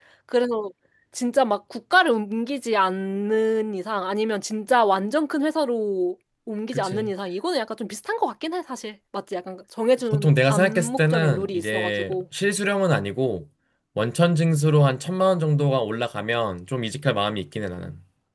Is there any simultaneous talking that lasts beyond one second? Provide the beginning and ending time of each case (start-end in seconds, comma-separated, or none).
10.1-12.2